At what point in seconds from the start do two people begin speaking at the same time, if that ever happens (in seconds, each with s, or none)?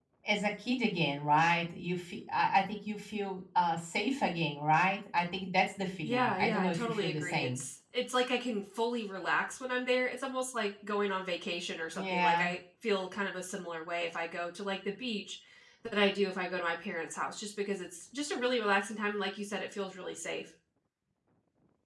6.0 s